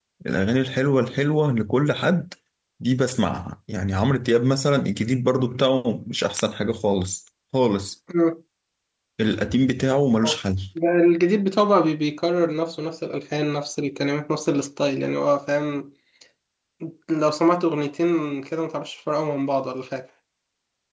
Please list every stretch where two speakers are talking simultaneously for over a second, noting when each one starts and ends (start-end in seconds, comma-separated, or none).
none